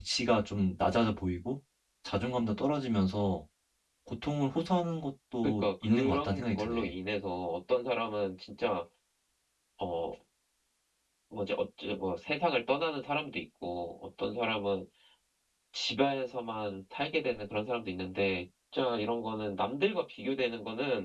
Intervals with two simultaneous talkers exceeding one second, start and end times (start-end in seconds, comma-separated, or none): 5.4-6.9